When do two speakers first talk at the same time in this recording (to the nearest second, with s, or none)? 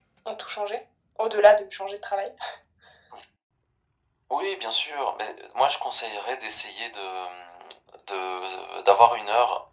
none